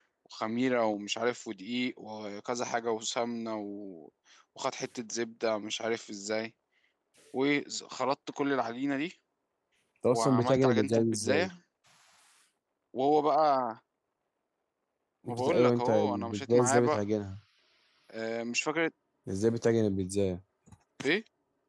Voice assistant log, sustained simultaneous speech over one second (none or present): present